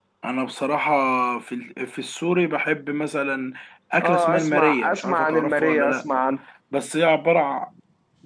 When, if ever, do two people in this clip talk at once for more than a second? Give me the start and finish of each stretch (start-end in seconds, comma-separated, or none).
4.0-6.0